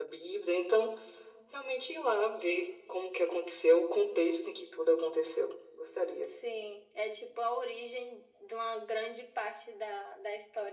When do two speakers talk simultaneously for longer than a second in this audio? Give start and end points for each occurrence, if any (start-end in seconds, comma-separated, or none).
none